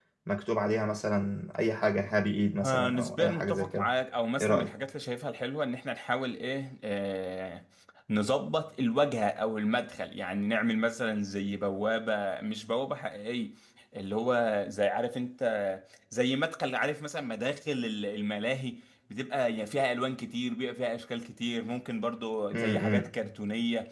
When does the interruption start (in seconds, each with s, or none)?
2.6 s